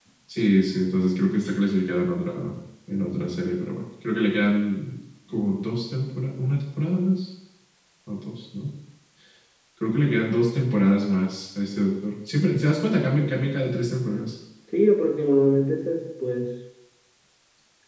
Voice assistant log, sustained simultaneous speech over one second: none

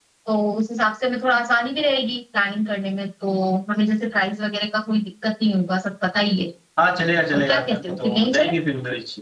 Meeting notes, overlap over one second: present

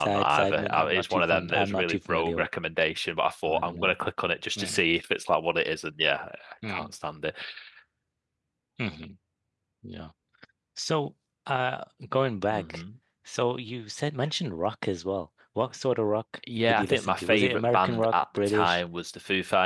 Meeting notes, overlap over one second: present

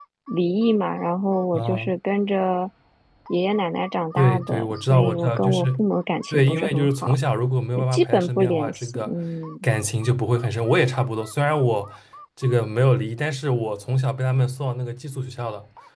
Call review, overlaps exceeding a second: present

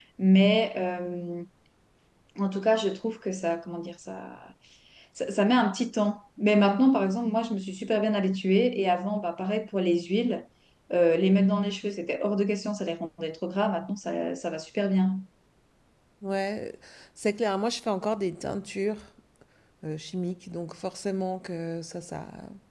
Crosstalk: none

